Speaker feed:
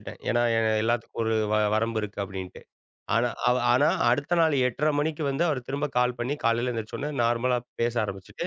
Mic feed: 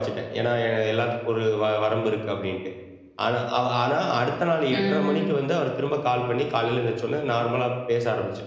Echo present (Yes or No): Yes